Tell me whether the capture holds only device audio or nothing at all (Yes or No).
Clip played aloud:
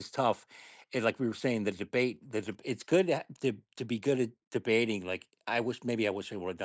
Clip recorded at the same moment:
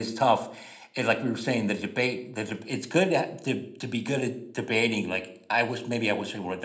Yes